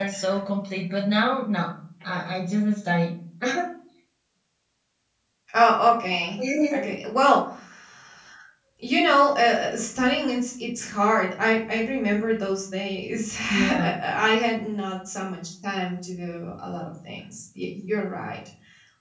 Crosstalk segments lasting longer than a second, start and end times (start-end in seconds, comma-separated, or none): none